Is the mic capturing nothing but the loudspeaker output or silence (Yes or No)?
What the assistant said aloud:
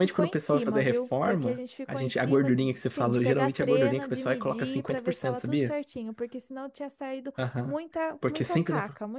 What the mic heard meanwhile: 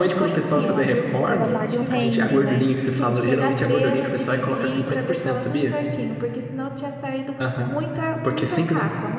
No